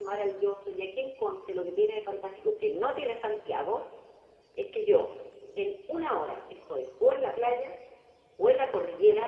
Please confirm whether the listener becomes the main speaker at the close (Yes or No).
No